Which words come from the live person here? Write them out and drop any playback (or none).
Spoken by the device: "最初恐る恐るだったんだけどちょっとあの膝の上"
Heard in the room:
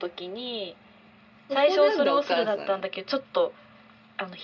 そこなんだ、お母さん。